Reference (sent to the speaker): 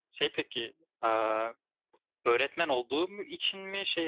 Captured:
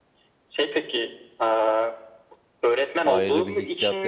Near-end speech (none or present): present